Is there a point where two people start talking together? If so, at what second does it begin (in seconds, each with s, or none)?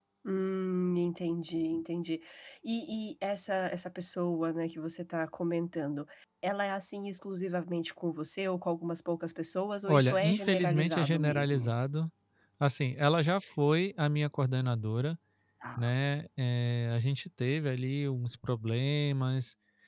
9.9 s